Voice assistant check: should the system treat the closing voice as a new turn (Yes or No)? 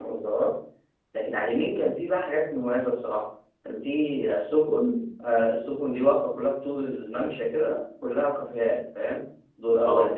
No